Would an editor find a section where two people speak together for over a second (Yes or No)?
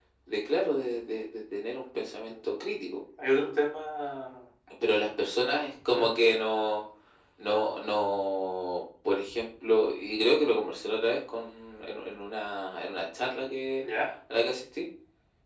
No